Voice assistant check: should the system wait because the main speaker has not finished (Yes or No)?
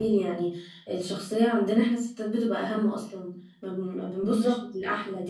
Yes